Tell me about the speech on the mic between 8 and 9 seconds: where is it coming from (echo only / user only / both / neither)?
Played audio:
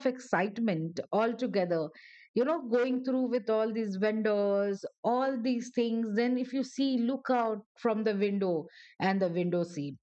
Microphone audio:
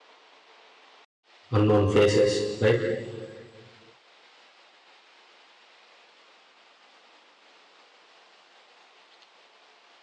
neither